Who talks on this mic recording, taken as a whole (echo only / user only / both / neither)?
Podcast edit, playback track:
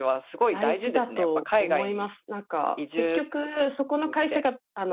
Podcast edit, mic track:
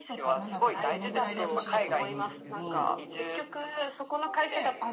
both